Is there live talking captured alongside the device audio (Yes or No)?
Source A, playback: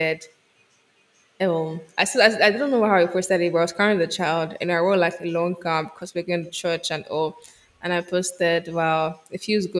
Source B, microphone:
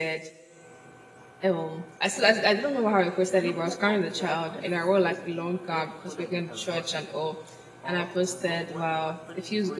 Yes